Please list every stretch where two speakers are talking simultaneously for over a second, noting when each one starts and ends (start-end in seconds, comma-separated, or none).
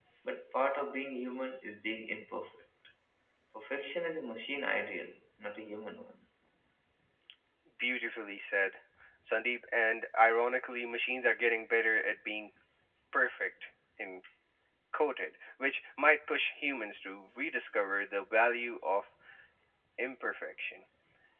none